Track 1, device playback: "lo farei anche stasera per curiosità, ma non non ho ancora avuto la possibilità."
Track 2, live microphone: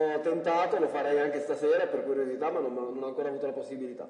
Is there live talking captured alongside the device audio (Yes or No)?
No